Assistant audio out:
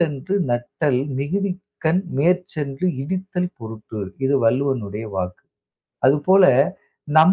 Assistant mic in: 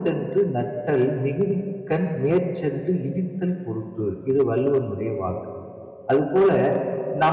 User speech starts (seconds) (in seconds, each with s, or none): none